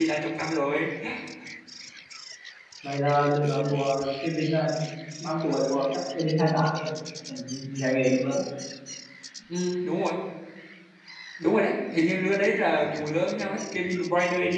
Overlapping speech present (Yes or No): No